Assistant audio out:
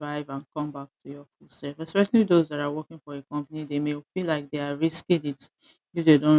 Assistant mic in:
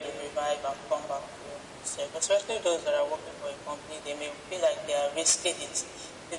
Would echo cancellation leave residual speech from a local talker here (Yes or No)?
No